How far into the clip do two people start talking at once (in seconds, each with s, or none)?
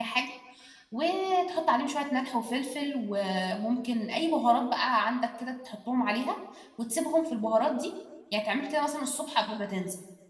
none